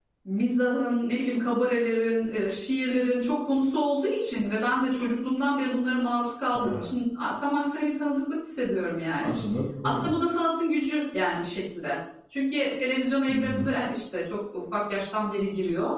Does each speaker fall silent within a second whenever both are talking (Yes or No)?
Yes